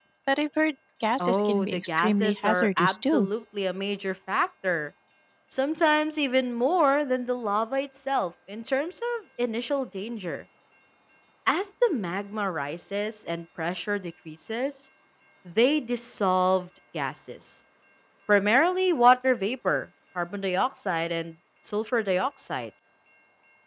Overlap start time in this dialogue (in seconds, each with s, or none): 1.2 s